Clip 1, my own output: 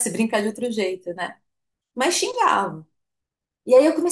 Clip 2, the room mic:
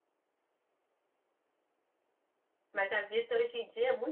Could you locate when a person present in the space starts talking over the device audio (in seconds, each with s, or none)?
2.7 s